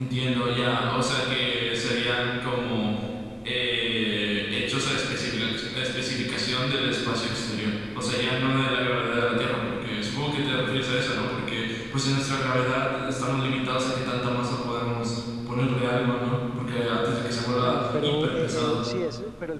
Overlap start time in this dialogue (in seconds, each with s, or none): 17.6 s